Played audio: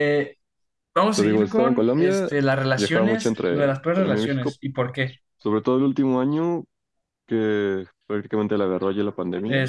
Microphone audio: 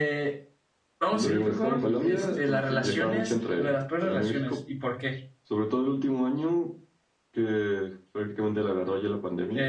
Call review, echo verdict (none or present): present